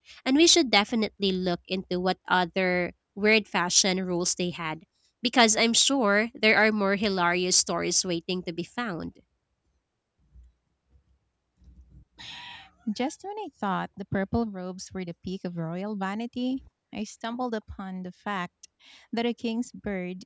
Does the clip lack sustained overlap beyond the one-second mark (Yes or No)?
Yes